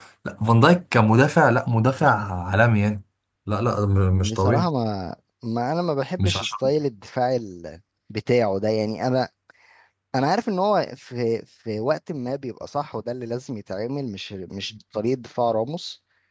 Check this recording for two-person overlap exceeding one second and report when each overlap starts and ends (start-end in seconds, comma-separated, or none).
none